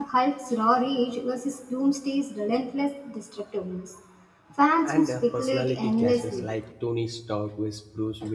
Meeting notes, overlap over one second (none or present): present